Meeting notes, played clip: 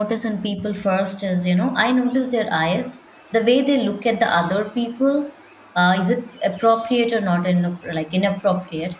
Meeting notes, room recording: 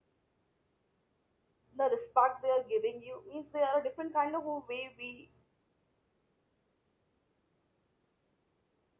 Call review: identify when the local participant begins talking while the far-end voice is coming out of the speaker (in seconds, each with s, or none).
1.8 s